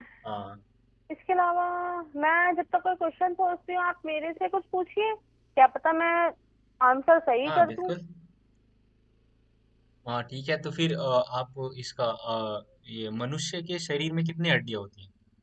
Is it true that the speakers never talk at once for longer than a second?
Yes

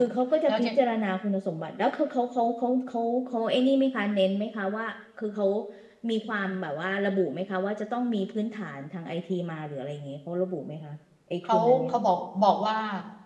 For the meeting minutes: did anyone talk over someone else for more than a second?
No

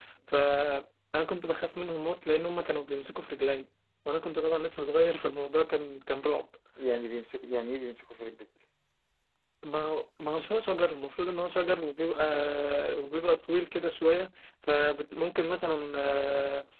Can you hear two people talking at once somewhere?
No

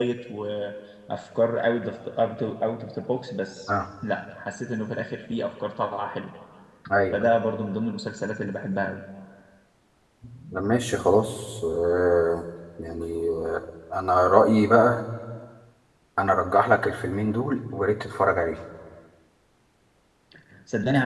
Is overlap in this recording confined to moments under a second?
Yes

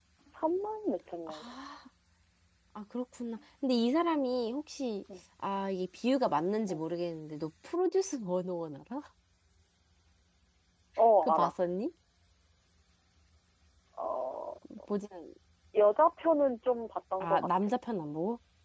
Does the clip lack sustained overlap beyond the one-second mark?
Yes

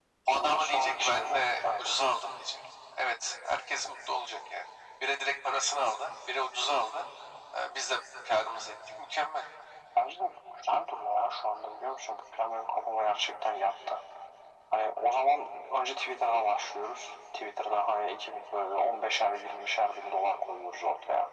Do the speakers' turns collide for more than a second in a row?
Yes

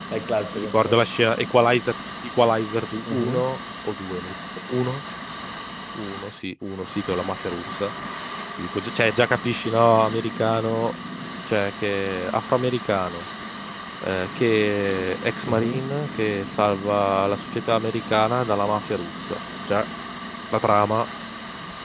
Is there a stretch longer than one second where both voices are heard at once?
No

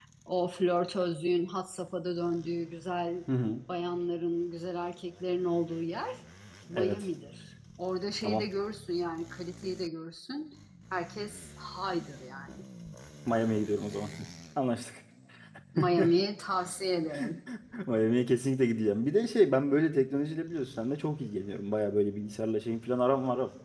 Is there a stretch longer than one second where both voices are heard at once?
No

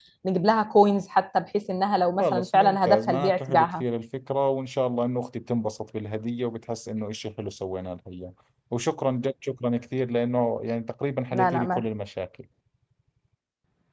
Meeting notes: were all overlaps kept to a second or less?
No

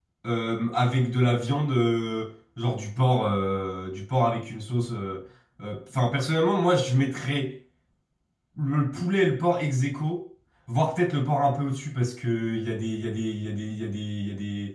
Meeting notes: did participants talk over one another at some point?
No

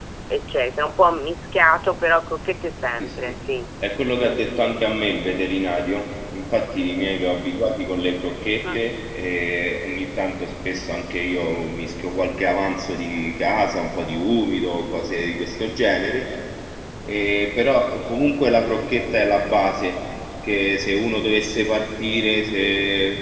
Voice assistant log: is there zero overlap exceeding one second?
Yes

